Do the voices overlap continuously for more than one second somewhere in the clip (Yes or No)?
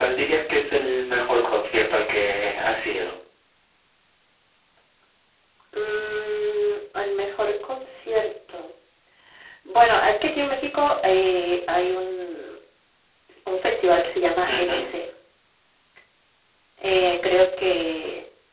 No